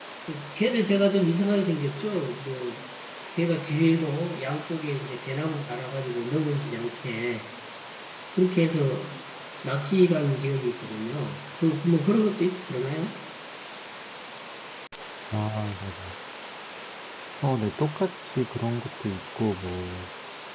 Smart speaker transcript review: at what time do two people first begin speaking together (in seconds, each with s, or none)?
none